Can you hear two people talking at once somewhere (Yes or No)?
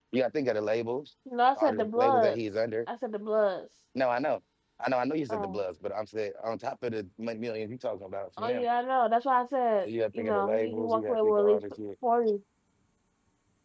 Yes